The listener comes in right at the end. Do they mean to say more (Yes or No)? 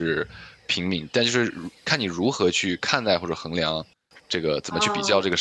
Yes